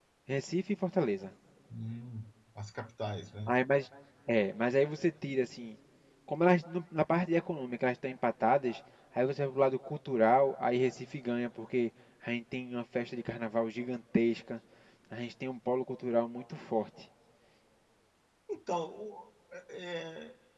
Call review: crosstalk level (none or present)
none